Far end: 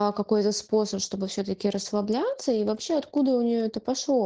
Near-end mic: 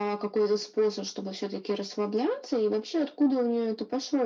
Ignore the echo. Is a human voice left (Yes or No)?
No